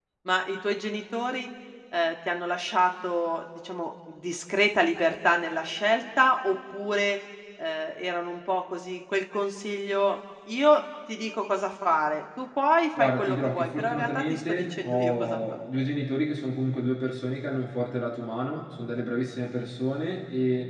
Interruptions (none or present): present